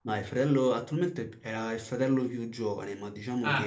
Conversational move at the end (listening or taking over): taking over